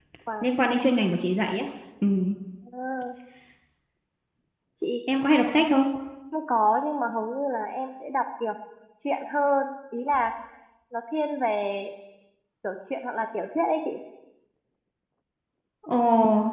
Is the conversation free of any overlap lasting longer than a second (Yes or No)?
Yes